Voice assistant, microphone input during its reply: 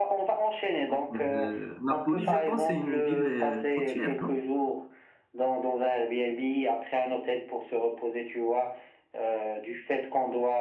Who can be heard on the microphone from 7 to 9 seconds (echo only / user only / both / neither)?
echo only